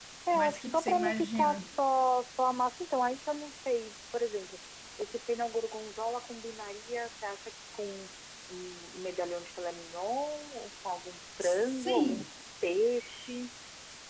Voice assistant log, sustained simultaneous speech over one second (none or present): present